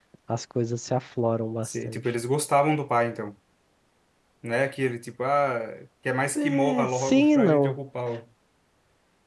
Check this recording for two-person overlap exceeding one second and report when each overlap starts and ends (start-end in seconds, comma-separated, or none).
6.4-7.8